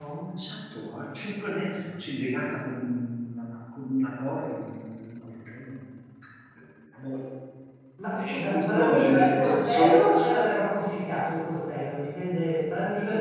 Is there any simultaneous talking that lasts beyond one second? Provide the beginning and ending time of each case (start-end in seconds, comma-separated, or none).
8.1-10.1